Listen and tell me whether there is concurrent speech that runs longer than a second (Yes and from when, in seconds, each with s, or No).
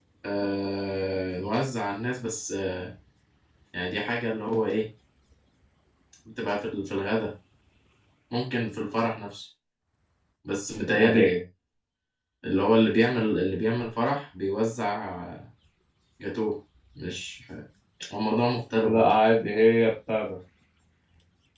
No